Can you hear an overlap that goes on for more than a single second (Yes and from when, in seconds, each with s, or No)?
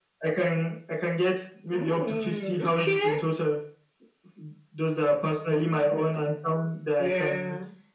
Yes, from 1.7 s